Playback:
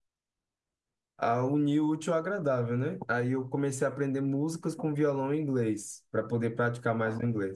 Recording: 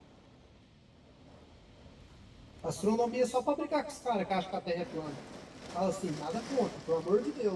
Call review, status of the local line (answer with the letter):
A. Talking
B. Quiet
A